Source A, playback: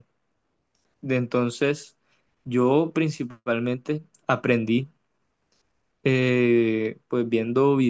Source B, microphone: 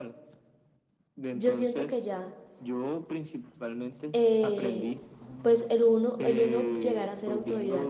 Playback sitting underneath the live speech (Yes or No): Yes